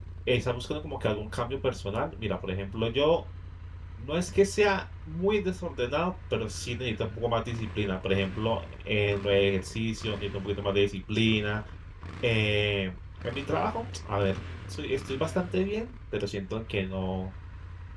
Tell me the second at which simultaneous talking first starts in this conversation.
none

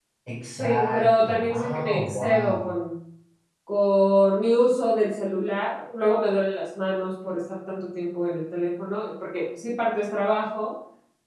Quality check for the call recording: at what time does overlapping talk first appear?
0.6 s

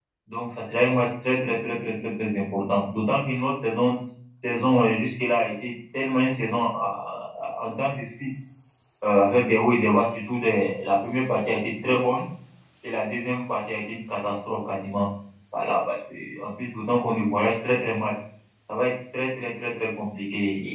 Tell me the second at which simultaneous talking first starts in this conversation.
none

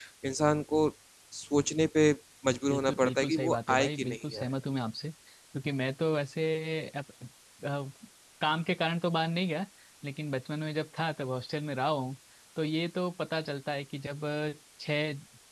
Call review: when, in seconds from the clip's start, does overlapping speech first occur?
2.7 s

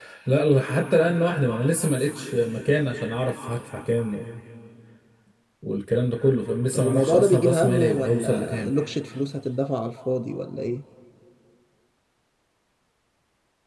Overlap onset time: 6.7 s

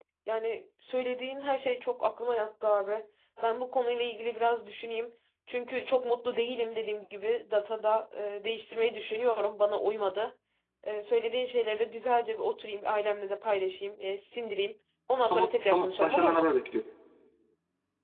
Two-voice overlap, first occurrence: 15.3 s

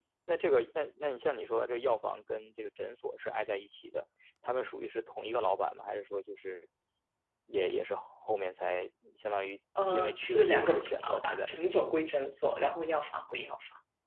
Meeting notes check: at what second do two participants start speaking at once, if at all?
9.8 s

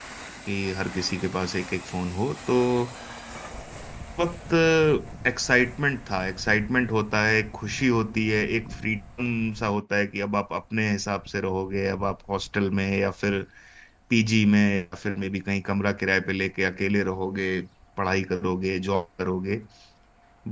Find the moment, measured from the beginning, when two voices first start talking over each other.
none

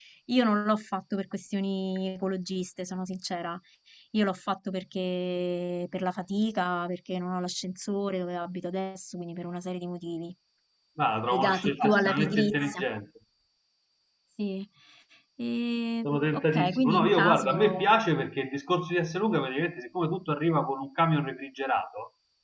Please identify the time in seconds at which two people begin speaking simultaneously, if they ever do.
11.3 s

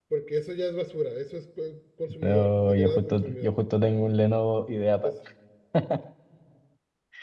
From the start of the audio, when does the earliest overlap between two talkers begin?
2.2 s

